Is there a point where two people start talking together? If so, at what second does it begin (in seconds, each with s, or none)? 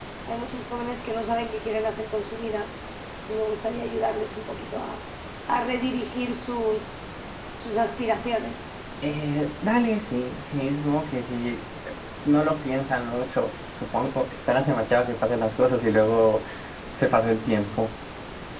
none